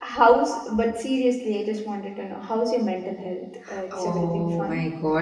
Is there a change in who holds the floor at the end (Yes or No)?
Yes